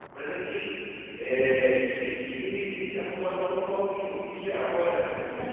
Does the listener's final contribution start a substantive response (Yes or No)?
No